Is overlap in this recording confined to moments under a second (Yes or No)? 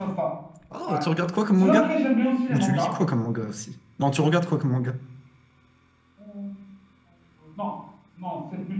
Yes